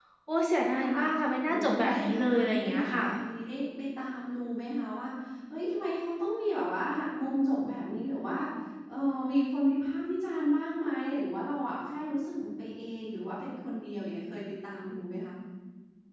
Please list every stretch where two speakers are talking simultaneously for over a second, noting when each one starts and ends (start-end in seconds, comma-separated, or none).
1.5-3.1